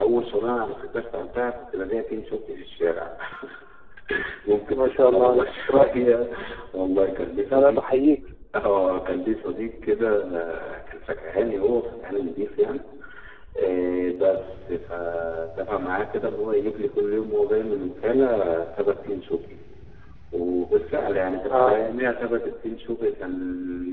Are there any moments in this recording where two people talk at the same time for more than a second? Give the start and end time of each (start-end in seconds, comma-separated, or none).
4.8-6.0